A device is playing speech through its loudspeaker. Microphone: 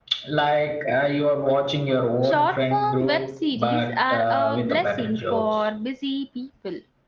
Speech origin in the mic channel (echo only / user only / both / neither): both